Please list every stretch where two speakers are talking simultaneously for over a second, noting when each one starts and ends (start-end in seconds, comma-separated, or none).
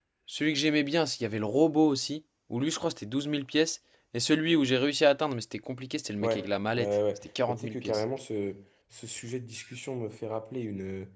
6.8-8.0